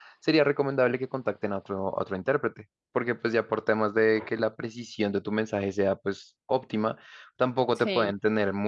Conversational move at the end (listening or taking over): listening